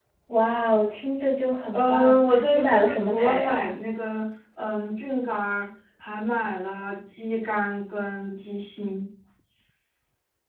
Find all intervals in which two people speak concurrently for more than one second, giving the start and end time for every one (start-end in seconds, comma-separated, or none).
1.7-3.8